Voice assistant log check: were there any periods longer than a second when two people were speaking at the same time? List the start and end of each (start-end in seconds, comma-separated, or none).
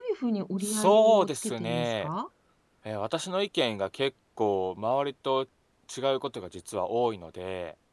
0.6-2.1